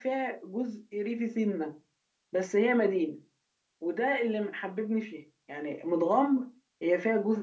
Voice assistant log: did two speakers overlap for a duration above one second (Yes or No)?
No